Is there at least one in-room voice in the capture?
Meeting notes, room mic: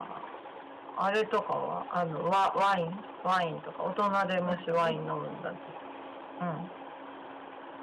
Yes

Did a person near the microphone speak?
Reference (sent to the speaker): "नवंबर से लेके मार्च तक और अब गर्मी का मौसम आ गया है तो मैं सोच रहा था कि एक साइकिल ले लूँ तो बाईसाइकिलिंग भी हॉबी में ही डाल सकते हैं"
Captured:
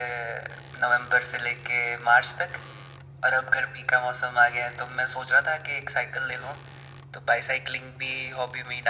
No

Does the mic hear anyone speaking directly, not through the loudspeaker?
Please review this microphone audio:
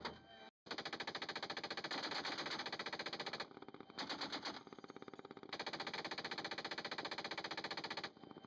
No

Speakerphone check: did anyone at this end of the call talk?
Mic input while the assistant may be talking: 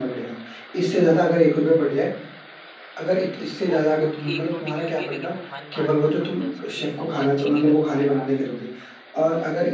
Yes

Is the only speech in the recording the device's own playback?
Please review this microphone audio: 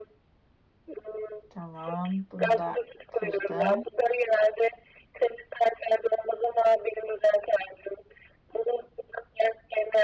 No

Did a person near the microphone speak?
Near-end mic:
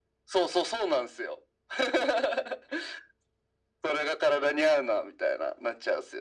No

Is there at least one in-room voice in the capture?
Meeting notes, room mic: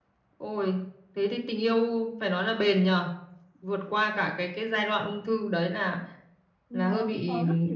Yes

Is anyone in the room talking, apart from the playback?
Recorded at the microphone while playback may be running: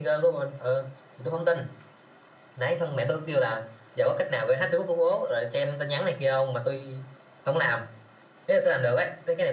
No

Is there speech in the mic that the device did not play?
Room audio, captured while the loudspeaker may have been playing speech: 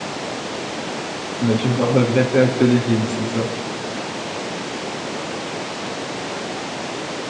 Yes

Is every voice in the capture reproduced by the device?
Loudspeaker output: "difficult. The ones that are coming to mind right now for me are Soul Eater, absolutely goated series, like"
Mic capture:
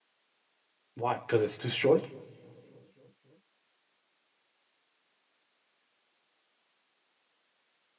No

